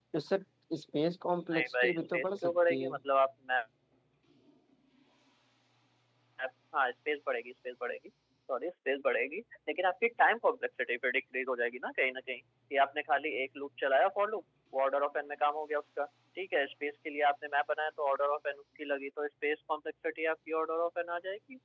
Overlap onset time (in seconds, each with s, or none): 1.5 s